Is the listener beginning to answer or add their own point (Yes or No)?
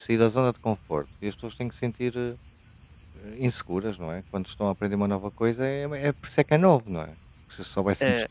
No